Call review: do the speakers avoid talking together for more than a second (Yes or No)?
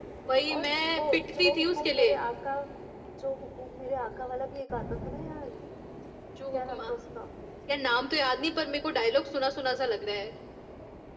No